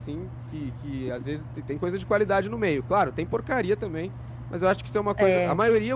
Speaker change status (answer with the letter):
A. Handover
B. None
B